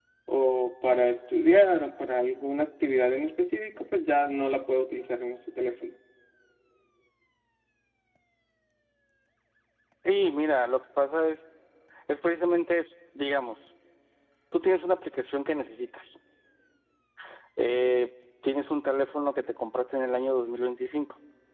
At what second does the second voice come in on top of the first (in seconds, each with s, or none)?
none